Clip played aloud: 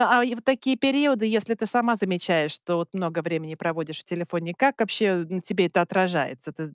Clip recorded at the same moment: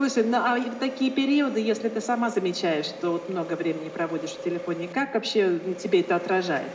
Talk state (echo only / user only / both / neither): echo only